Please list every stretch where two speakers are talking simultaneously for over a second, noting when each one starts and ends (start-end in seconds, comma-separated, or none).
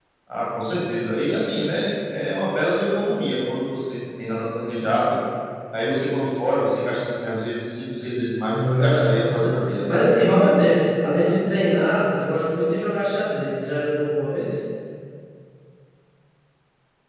8.5-9.7